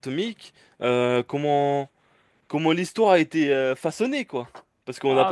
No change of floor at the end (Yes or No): No